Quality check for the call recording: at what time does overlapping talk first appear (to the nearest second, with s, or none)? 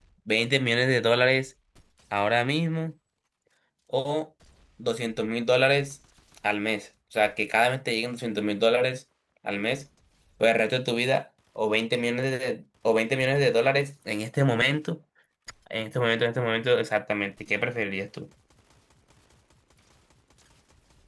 none